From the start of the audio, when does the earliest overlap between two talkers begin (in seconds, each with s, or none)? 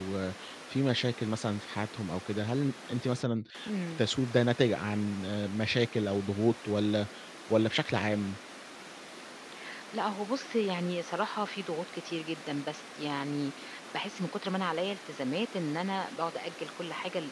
none